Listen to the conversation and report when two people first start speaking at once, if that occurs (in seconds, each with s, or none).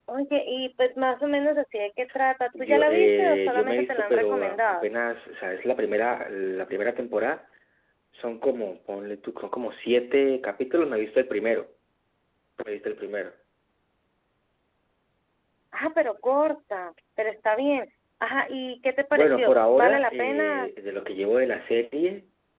2.6 s